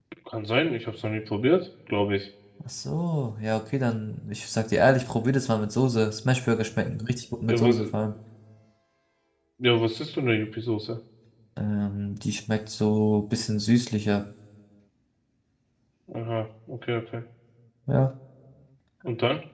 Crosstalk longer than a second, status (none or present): none